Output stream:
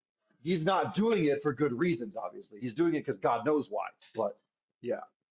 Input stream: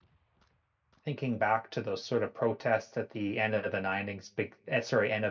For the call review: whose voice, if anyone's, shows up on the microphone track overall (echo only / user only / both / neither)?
user only